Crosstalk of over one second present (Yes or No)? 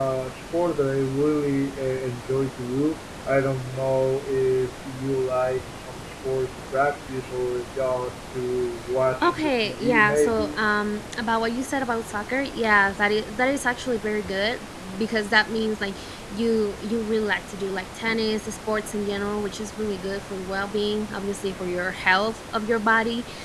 Yes